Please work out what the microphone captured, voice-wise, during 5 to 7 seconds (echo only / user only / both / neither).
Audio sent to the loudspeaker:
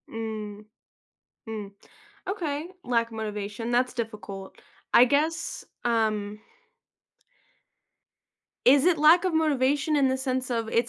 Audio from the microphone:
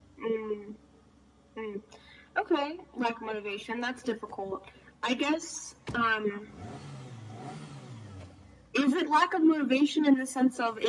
echo only